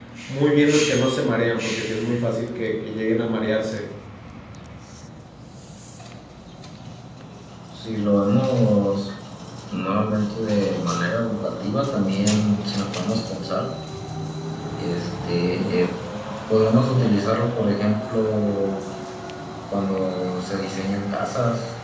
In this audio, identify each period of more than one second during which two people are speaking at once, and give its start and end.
none

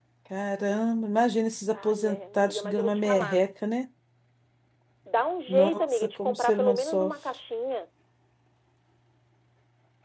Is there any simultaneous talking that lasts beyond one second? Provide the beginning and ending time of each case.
1.7-3.4, 5.5-7.1

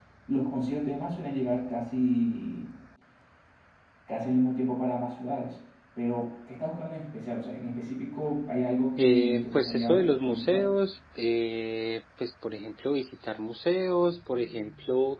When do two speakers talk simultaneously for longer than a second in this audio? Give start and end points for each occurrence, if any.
9.0-10.6

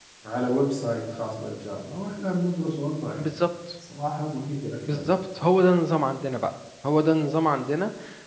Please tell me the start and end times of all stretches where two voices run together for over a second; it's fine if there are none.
none

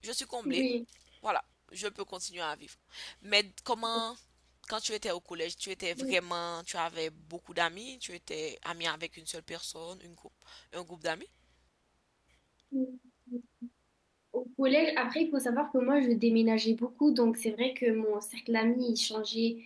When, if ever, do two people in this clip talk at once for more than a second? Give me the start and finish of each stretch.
none

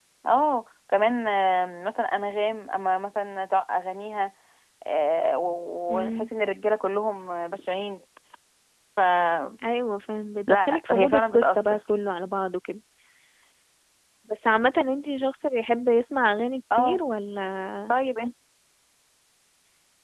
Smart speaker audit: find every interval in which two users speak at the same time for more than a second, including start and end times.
10.5-11.8

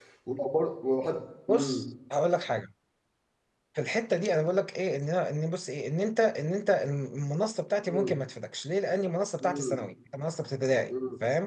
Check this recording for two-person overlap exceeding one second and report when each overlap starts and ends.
none

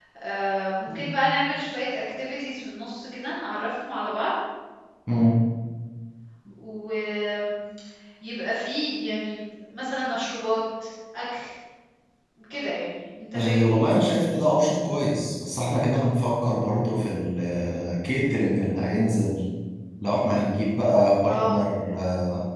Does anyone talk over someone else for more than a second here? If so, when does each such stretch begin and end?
none

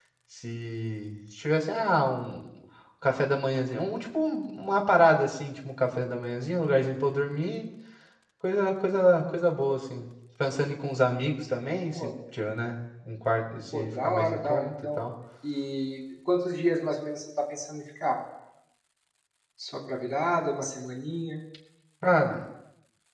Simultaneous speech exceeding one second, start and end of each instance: 13.7-15.0

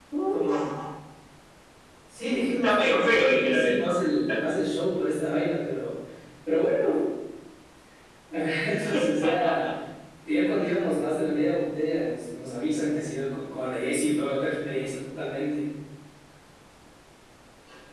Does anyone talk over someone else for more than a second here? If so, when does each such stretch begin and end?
2.5-4.0

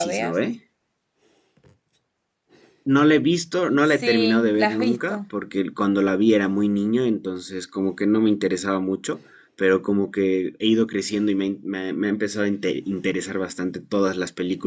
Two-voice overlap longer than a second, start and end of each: 3.9-5.2

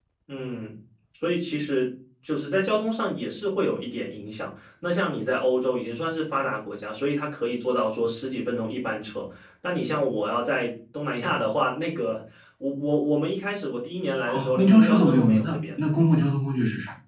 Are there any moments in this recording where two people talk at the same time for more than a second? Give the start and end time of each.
14.2-15.6

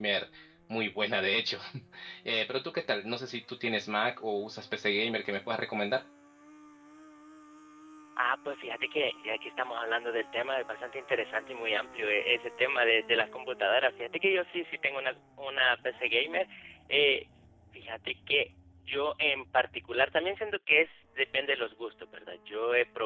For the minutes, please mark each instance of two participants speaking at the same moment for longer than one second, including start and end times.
none

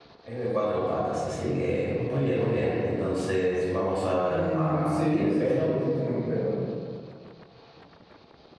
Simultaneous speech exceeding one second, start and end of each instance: 4.3-5.7

